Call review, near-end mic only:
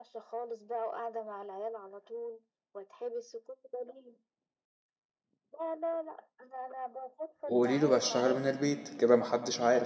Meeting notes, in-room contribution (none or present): present